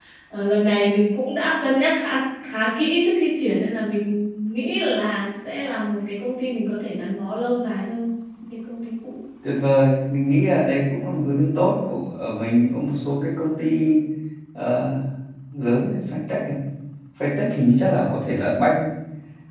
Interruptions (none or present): none